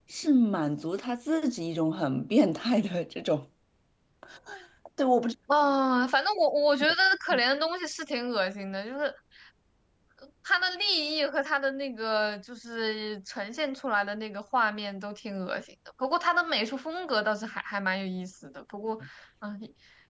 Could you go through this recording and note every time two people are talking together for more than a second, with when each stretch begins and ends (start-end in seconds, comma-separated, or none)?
none